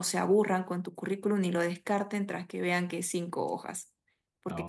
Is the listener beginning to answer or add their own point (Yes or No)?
No